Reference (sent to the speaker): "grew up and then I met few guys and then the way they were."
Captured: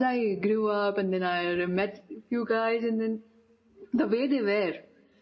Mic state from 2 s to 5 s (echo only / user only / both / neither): echo only